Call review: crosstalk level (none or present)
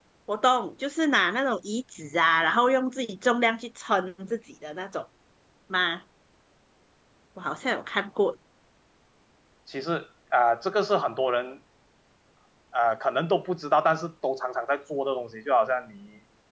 none